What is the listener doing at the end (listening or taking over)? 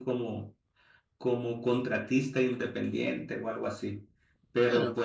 listening